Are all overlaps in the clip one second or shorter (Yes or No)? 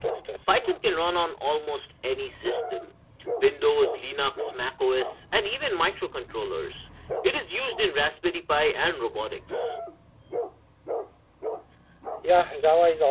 Yes